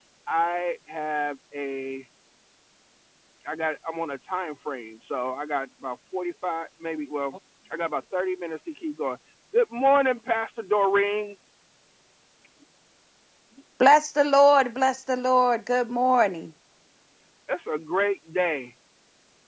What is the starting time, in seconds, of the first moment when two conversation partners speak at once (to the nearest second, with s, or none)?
none